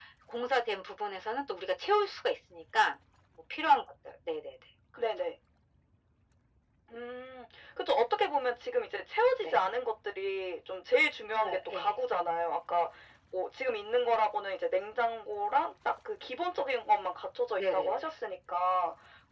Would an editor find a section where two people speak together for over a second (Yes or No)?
No